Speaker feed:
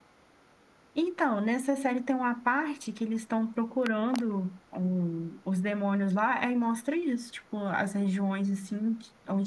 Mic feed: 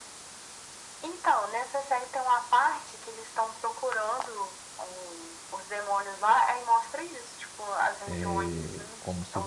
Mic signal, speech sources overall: both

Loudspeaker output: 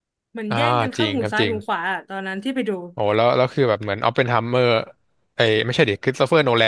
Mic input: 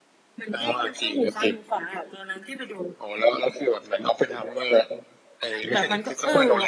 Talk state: both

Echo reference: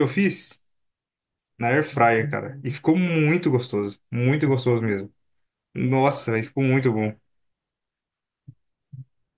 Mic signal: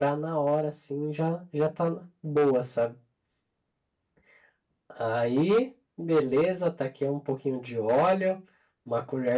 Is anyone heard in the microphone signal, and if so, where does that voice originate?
user only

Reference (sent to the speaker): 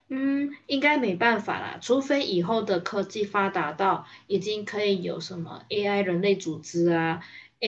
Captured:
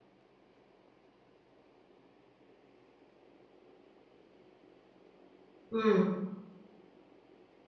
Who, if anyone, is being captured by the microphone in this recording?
user only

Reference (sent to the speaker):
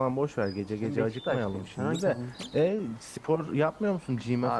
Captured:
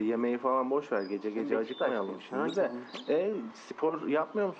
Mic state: echo only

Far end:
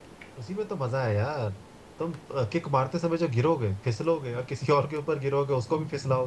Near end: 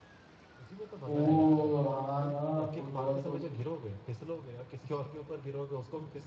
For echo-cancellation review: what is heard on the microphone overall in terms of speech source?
both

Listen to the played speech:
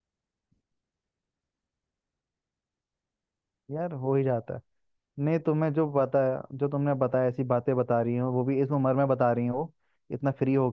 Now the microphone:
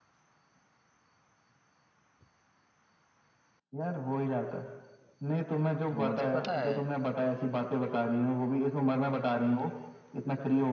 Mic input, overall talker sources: both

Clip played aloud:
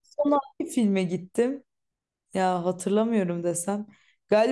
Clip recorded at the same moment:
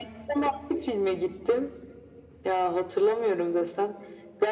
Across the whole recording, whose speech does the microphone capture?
echo only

